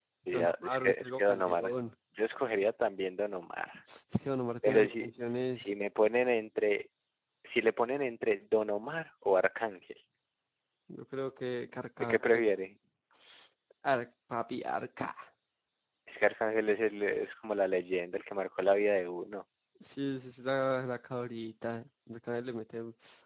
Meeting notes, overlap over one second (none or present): present